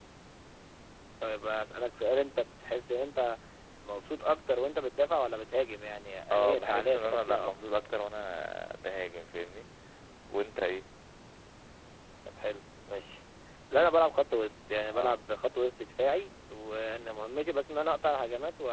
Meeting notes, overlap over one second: present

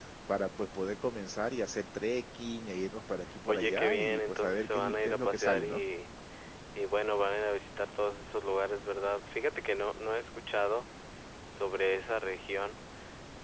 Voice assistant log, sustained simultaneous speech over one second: present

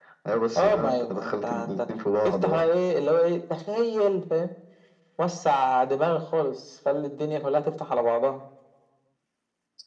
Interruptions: present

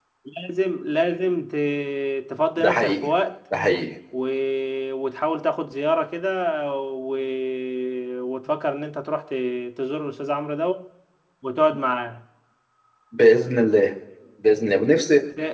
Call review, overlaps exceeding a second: none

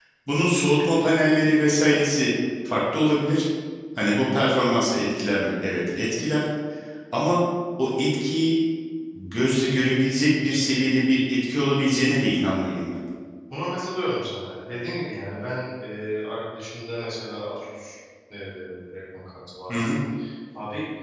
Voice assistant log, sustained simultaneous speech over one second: none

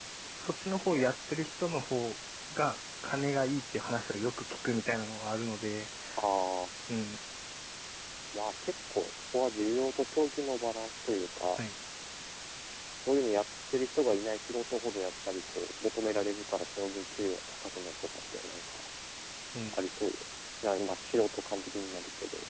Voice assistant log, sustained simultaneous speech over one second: none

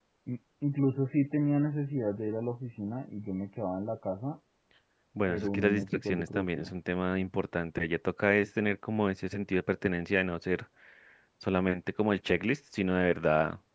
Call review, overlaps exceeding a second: present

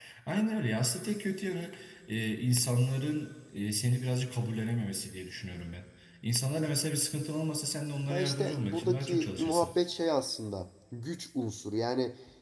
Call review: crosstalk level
present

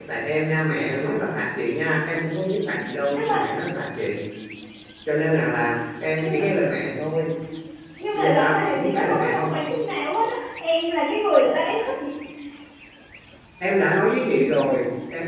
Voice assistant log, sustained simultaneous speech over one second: present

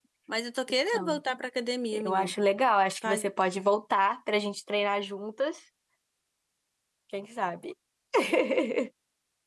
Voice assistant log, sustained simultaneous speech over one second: none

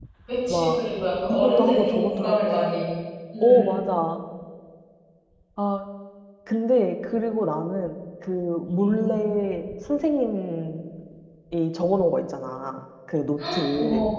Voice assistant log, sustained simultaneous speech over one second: present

